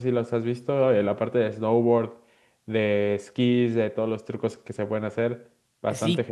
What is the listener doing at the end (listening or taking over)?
taking over